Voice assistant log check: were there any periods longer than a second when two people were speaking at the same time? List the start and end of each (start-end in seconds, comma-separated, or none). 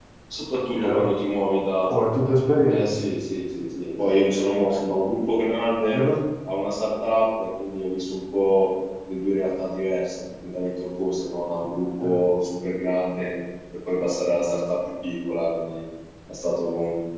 none